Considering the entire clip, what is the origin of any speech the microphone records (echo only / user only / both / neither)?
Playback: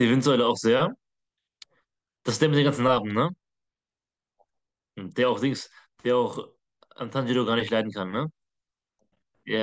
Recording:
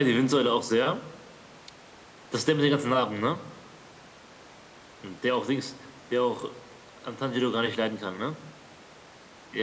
echo only